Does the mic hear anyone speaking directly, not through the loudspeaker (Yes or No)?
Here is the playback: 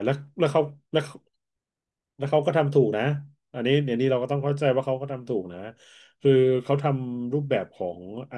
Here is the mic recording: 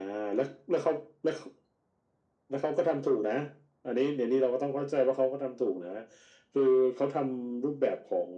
No